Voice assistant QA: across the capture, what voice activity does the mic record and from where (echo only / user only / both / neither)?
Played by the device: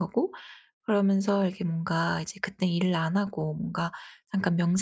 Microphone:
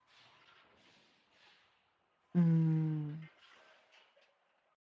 user only